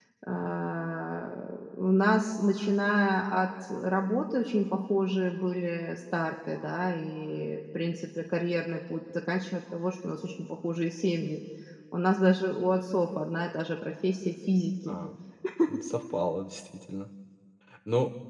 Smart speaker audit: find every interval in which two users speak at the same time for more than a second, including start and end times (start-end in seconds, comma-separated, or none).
none